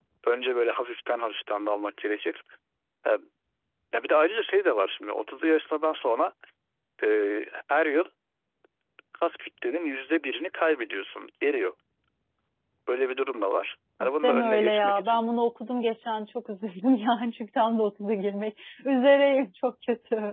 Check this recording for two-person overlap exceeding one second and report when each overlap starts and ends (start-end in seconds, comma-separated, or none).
14.0-15.2